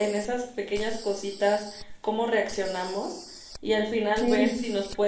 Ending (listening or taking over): listening